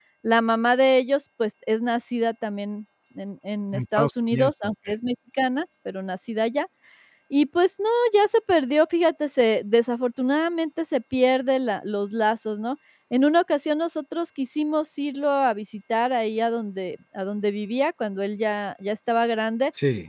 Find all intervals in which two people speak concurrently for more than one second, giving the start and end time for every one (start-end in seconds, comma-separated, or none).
3.7-4.9